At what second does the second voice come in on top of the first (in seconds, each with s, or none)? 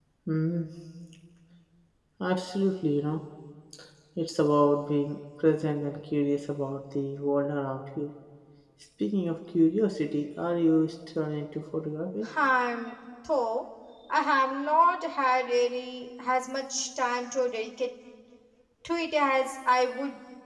none